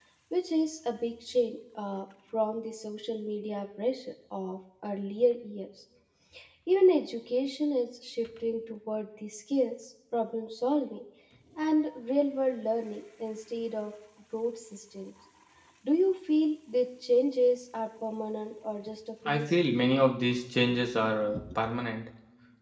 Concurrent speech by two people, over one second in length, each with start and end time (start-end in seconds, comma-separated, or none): none